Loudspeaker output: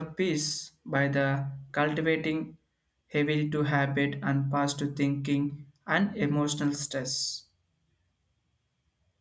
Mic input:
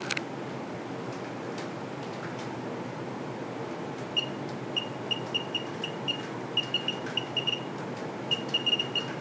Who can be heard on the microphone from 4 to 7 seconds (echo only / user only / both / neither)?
neither